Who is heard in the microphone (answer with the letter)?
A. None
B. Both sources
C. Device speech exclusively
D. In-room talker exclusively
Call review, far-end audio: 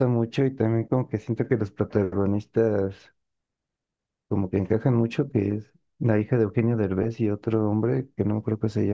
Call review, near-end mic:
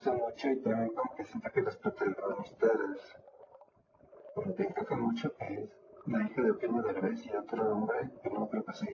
C